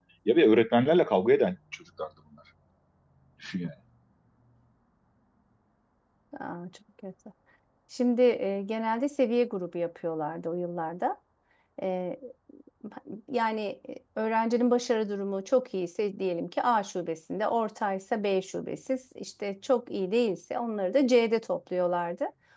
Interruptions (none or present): none